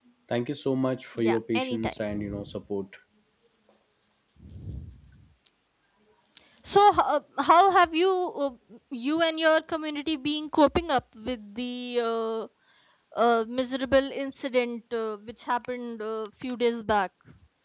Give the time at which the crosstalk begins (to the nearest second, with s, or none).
1 s